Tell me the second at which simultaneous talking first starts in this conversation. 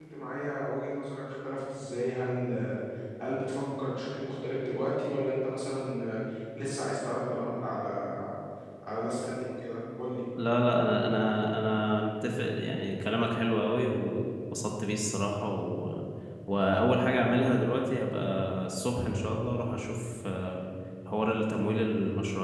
none

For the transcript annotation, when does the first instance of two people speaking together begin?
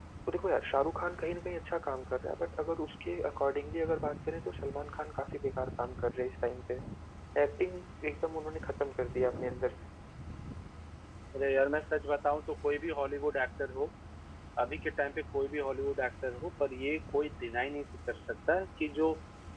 none

